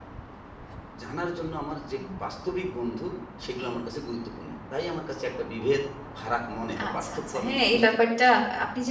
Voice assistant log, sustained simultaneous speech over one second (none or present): present